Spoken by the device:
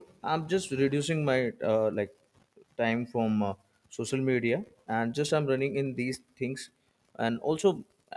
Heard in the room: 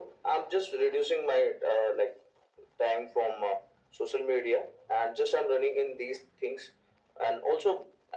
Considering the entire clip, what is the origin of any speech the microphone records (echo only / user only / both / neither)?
echo only